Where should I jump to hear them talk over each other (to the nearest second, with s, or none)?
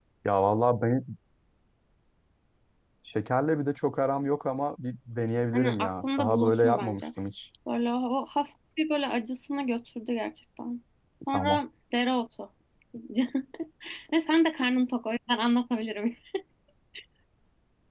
6 s